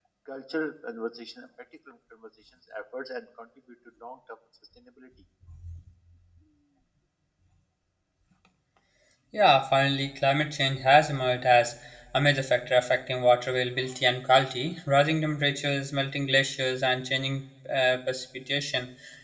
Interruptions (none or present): none